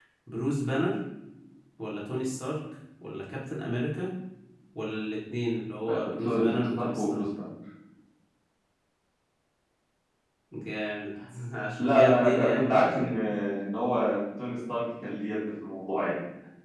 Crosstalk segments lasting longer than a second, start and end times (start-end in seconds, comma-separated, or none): 5.9-7.2, 11.8-13.1